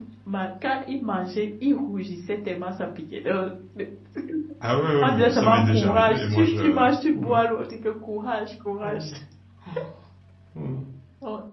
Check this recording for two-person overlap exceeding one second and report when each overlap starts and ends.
5.0-6.8

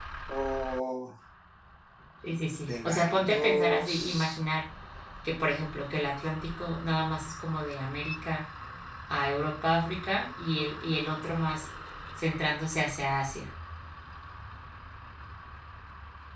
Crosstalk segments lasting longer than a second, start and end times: 2.6-4.4

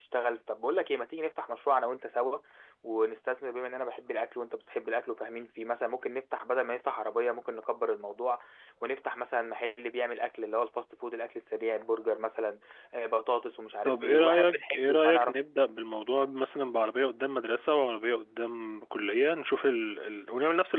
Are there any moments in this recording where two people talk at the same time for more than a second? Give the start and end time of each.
13.8-15.4

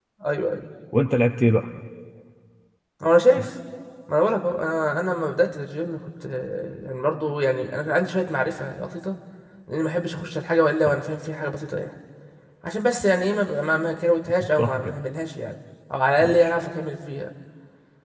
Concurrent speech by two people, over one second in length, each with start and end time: none

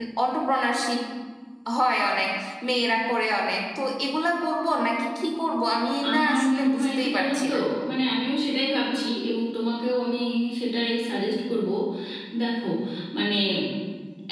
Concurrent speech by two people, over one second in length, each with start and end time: 6.1-7.5

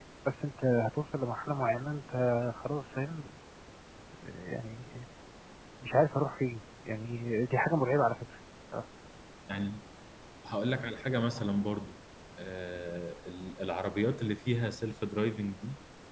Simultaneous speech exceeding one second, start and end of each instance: none

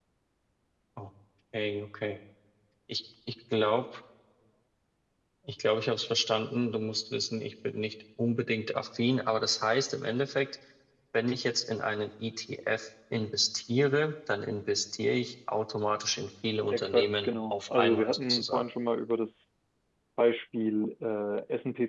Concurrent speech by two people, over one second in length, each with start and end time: 16.7-18.6

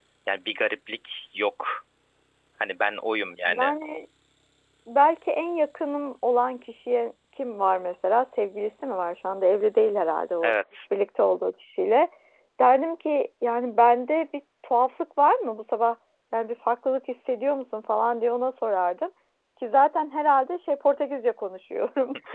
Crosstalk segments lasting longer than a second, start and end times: none

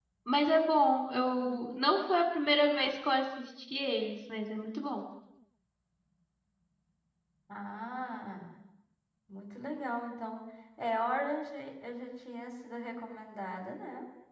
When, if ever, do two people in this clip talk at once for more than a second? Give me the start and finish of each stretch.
none

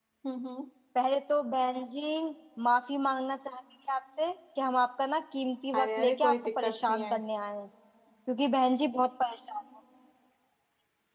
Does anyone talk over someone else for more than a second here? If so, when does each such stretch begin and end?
5.8-7.1

